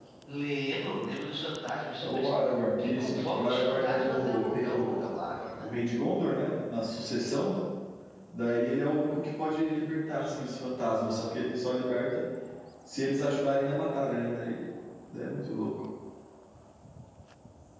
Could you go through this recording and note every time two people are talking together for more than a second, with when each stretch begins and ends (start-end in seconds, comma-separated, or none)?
2.8-5.0